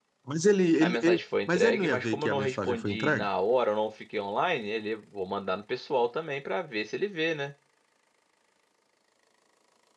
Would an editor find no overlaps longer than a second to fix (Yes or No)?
No